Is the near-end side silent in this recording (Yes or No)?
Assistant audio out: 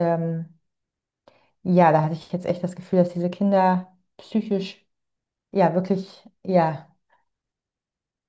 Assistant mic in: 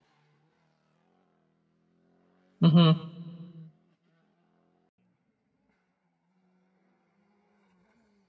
No